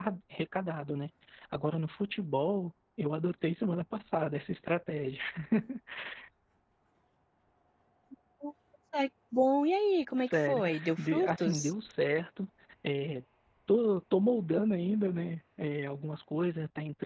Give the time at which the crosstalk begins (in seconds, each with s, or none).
10.2 s